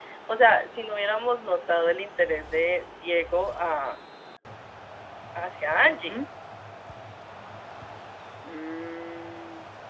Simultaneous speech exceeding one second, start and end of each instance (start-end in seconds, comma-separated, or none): none